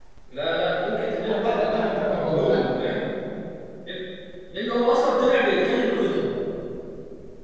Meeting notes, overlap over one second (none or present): present